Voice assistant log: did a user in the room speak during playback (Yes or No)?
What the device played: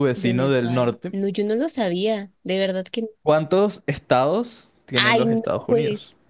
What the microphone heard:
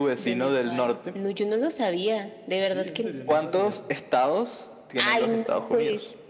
Yes